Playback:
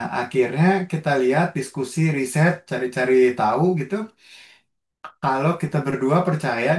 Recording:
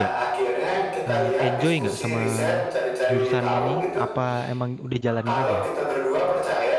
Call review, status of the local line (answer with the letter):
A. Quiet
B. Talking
B